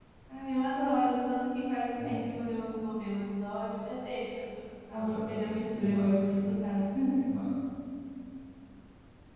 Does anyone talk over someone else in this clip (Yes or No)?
Yes